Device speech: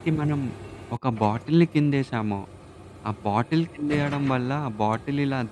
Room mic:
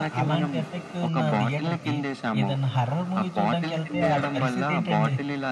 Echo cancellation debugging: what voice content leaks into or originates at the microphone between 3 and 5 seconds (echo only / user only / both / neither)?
both